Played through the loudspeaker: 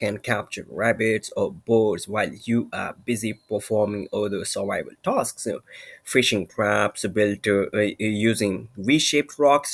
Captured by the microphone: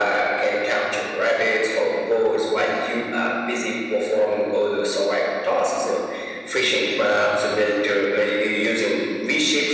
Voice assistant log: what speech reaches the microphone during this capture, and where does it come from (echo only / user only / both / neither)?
echo only